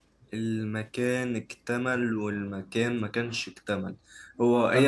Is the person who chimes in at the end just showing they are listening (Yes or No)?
Yes